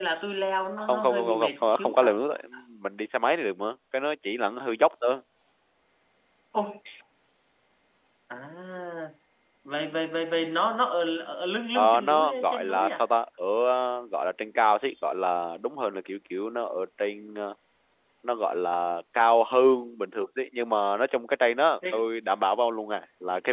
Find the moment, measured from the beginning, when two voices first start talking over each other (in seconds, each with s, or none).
0.9 s